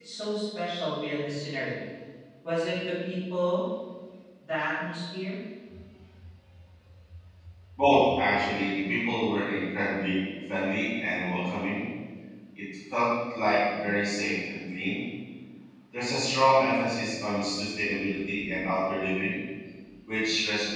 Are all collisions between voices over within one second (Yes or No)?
Yes